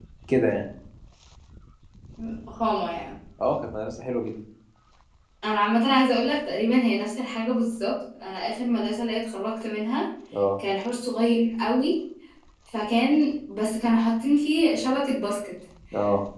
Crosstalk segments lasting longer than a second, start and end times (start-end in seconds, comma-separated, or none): none